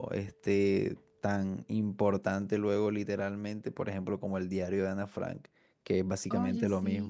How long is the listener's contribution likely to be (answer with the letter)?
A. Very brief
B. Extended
A